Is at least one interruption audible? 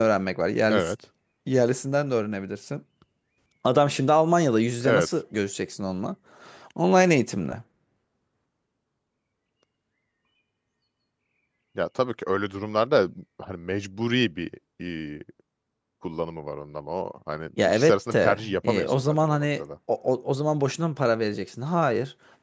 Yes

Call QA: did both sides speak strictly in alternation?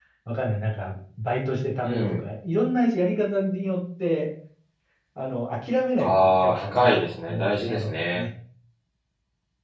No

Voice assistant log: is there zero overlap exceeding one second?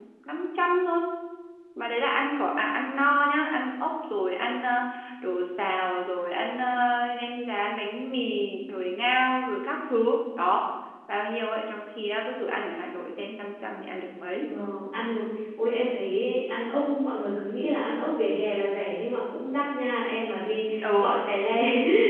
Yes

